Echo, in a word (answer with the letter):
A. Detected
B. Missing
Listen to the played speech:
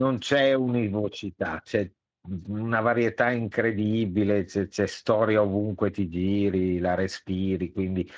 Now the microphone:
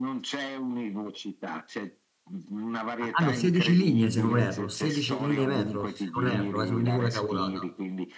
A